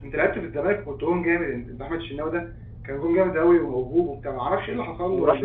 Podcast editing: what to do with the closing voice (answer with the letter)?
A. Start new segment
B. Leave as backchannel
A